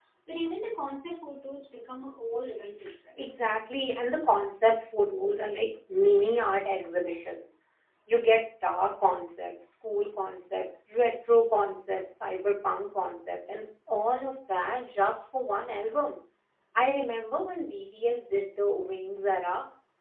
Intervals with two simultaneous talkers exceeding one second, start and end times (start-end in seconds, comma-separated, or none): none